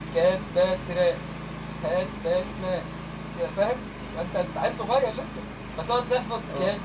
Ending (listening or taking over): listening